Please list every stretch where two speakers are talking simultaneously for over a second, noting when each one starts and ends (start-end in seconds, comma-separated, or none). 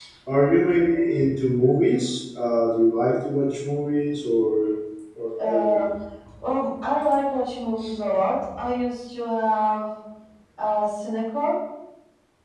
none